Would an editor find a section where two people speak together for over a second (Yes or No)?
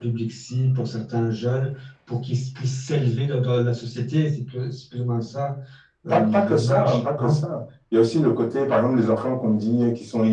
Yes